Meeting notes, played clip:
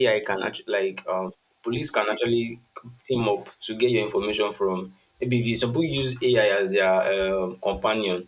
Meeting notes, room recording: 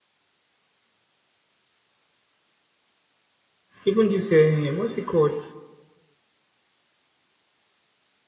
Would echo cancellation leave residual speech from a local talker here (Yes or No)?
Yes